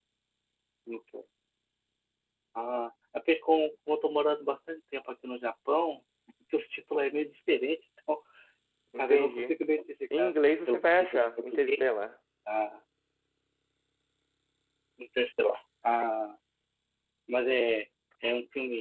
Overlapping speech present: Yes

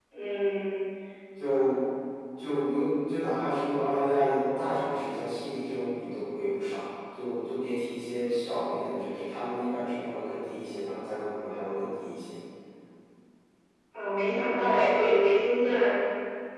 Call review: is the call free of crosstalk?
Yes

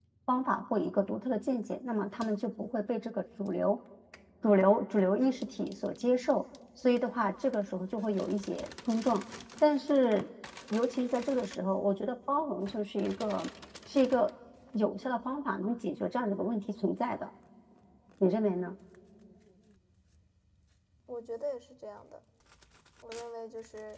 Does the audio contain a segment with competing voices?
No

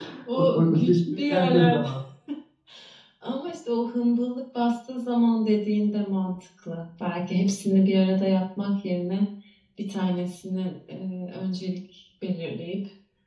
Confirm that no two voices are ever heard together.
No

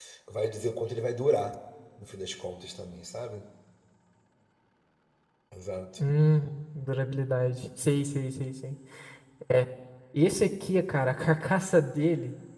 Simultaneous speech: No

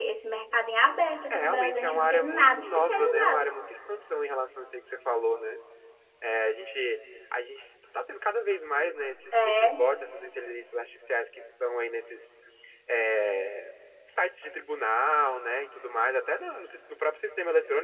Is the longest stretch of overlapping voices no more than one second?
No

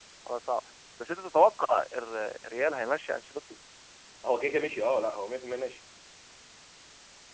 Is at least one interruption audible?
No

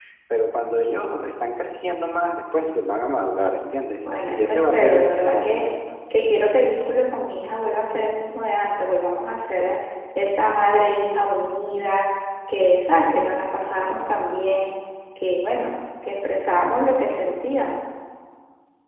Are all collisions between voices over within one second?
No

